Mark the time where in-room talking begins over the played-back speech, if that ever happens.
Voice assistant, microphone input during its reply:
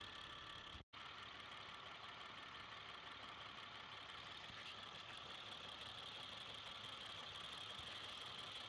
none

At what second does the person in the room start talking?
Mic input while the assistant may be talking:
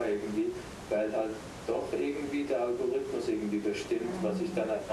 4.0 s

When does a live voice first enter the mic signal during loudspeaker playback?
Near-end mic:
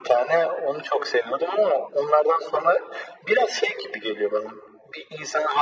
none

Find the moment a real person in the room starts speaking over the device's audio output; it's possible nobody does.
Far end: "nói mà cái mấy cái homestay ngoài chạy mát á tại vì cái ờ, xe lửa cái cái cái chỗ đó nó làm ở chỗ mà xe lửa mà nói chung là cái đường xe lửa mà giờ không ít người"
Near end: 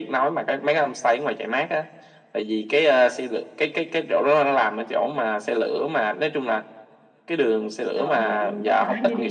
7.9 s

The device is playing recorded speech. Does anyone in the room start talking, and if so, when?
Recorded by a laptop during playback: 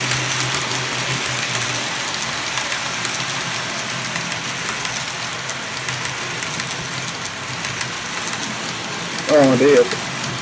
9.3 s

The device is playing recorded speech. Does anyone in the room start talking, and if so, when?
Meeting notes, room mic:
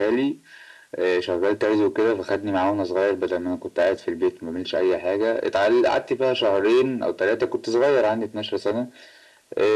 none

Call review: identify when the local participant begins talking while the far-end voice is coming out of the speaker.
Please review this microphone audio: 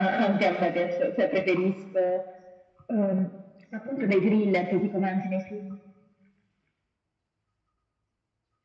none

